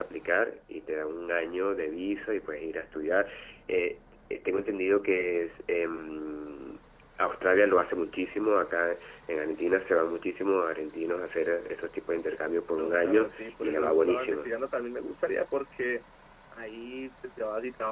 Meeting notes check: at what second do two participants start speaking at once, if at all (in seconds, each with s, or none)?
12.8 s